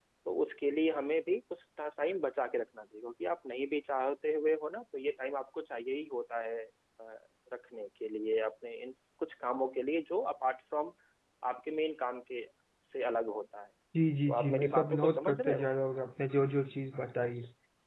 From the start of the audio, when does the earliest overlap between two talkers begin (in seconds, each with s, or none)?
14.3 s